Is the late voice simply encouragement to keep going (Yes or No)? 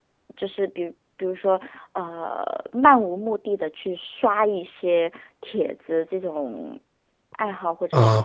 No